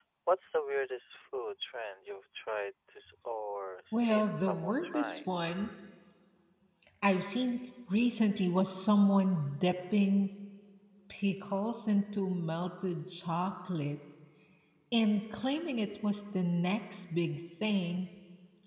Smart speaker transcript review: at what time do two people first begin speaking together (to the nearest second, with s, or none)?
4 s